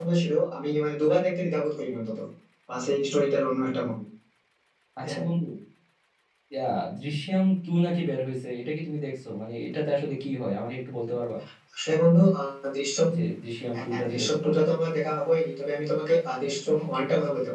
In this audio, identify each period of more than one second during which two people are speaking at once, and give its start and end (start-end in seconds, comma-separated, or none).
none